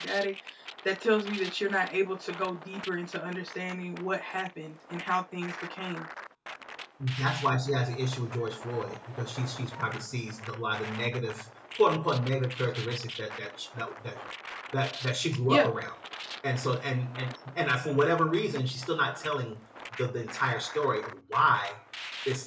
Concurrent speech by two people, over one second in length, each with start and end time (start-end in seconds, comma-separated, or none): none